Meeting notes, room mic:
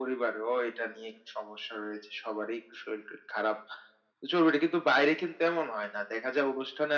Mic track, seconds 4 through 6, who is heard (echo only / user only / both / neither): echo only